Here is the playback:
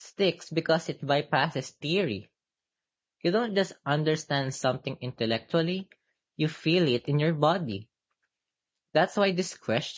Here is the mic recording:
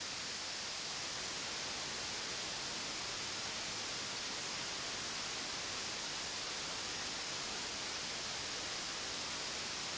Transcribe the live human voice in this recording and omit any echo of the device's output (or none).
none